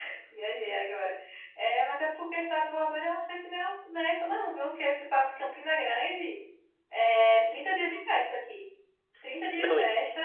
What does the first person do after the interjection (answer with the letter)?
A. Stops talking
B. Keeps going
B